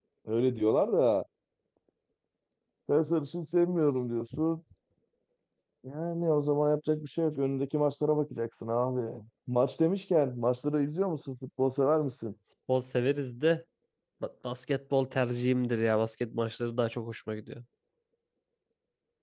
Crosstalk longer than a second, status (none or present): none